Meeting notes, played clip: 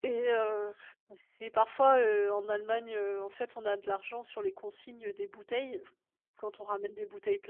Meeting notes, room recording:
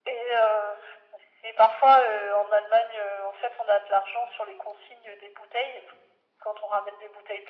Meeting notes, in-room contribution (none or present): none